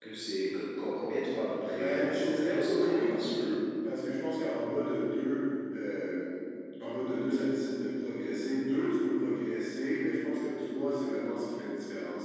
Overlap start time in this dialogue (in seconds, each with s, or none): 1.8 s